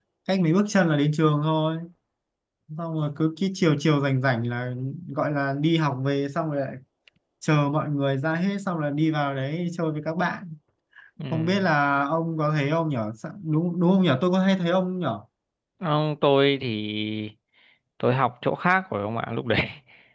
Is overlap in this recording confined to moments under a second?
Yes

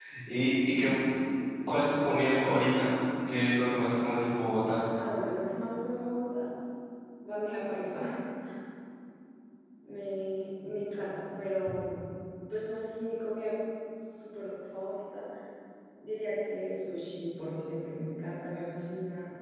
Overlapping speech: No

